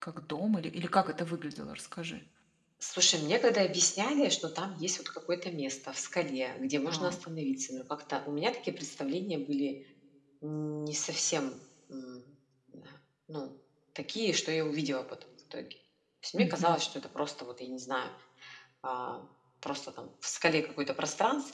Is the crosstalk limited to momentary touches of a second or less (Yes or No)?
Yes